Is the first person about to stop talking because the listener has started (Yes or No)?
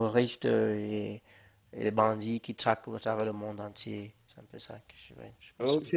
Yes